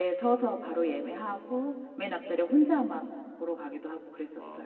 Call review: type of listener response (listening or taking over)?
taking over